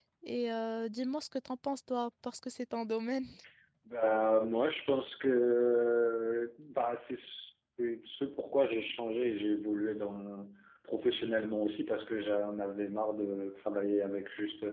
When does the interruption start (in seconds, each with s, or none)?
none